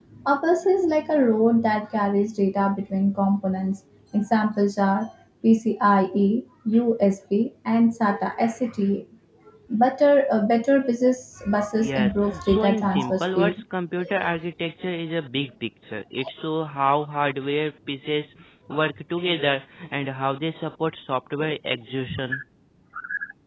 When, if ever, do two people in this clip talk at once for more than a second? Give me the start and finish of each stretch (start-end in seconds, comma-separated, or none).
11.8-13.6